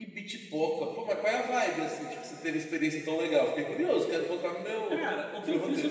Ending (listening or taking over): taking over